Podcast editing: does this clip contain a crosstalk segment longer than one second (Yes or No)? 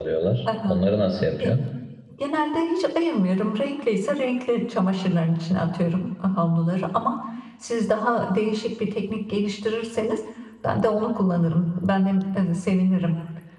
No